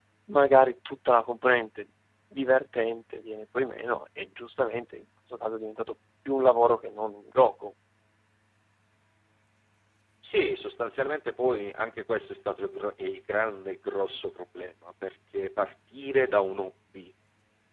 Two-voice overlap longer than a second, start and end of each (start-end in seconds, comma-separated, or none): none